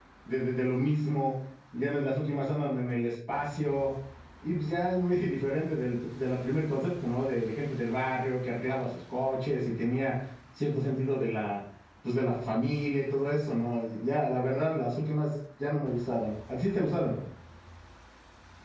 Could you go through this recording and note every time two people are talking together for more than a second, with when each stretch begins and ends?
none

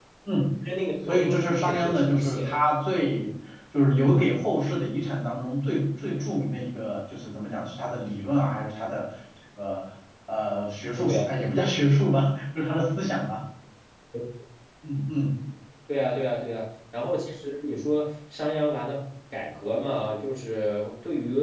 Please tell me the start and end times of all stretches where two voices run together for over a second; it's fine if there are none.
1.1-2.4

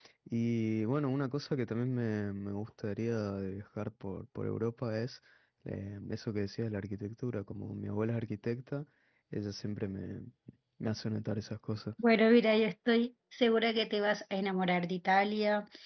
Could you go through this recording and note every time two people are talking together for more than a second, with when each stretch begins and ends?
none

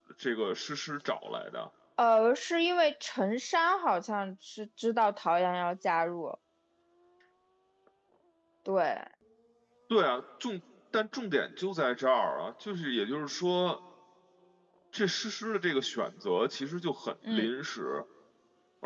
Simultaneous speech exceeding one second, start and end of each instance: none

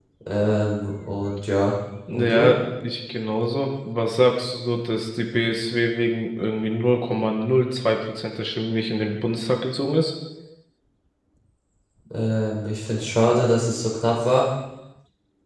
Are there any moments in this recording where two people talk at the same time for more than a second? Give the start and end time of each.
none

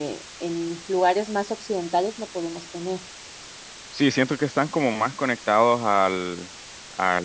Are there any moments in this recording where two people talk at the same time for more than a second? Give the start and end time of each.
none

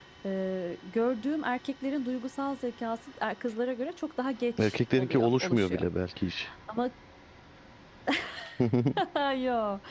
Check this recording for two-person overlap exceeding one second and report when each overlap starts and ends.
4.6-5.8

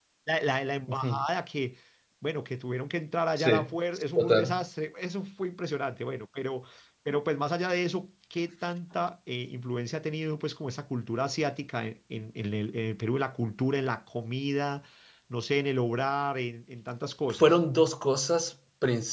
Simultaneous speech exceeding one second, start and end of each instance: none

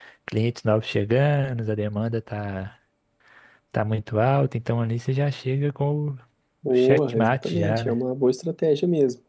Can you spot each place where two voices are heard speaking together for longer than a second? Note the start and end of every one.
6.7-8.0

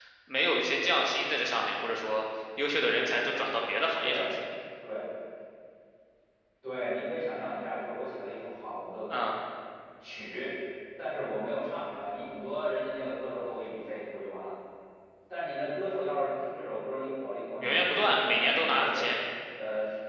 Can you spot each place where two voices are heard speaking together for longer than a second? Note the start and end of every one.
17.6-19.0

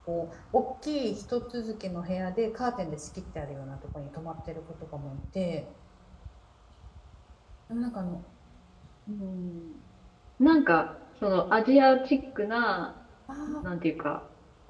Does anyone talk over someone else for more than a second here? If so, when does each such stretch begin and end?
none

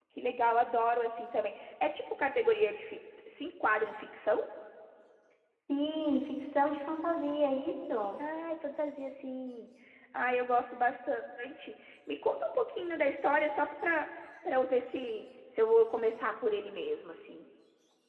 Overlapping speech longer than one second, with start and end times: none

